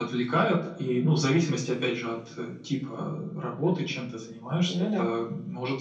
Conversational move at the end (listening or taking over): listening